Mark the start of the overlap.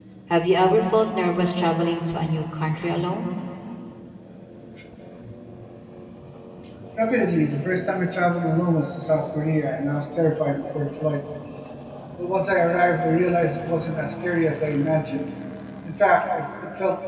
none

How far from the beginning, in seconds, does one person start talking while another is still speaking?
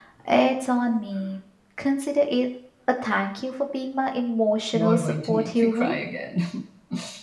4.7 s

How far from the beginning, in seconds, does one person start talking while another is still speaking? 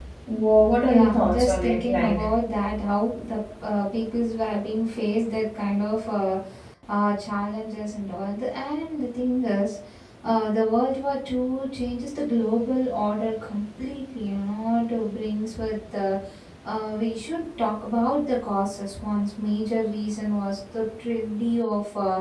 0.8 s

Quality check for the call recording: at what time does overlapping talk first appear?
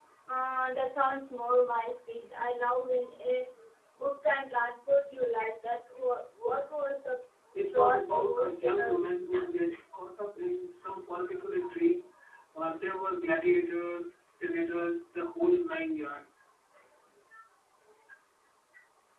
7.7 s

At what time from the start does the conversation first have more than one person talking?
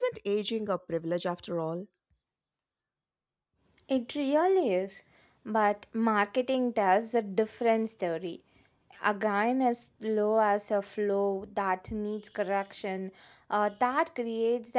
none

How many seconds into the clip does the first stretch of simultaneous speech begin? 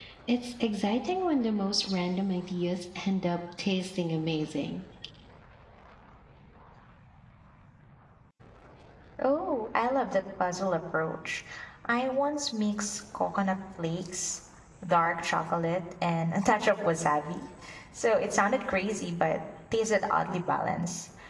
none

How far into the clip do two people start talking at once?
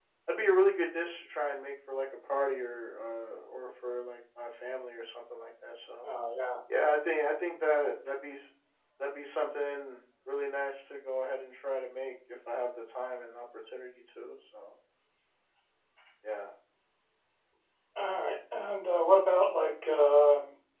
none

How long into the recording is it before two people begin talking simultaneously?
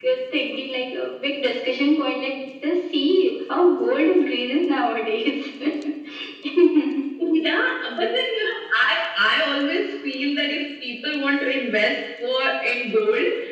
none

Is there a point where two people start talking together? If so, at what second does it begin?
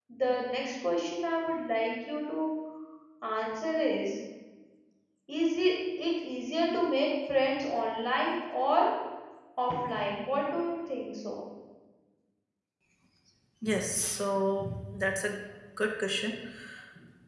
none

